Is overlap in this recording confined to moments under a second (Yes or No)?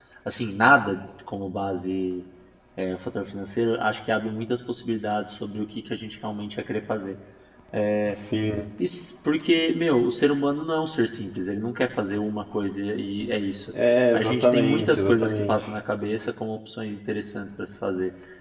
No